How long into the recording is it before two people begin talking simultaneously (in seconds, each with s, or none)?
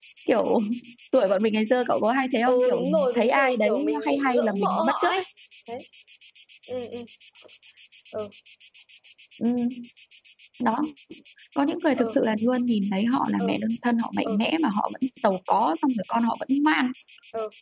2.5 s